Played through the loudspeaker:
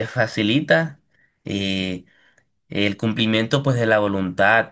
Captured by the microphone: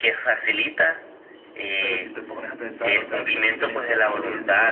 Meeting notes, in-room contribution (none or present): present